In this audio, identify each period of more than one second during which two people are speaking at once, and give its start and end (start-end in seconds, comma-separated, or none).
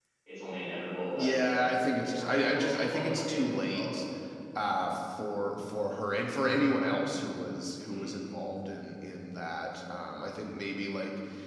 1.2-4.0